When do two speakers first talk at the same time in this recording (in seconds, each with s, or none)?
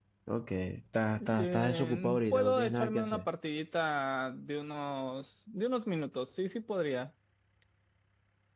1.2 s